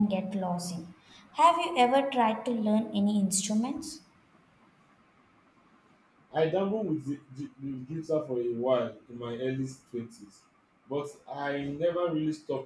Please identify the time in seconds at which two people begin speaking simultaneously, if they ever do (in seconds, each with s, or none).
none